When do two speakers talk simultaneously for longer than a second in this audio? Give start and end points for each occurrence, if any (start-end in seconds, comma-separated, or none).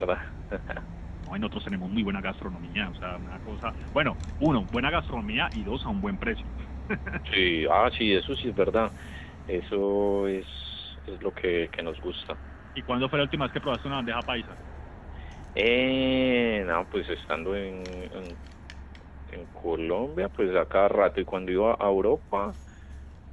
none